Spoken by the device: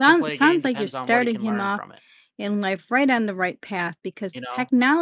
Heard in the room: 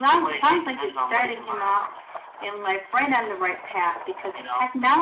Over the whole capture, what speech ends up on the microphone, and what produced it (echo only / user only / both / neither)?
echo only